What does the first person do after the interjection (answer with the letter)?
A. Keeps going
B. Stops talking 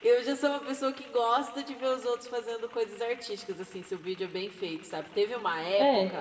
A